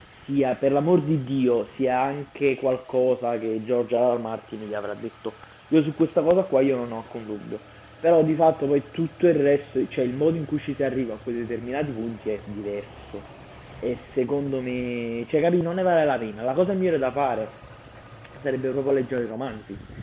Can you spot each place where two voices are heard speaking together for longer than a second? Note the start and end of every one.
none

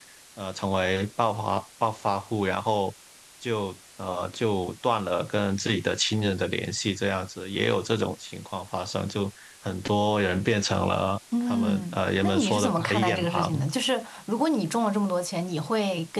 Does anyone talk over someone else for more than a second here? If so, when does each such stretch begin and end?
11.4-13.5

